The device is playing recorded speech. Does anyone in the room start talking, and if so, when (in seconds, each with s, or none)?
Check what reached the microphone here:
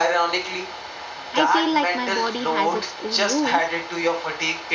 1.3 s